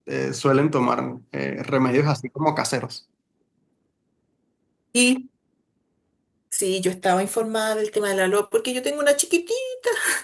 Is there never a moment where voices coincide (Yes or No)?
Yes